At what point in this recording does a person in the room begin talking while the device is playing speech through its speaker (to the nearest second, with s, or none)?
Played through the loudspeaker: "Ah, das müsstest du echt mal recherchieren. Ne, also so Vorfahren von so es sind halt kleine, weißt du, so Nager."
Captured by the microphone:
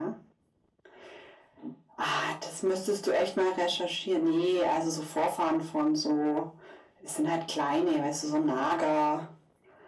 none